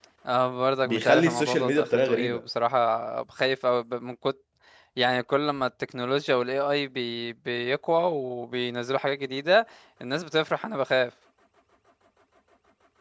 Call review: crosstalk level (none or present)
present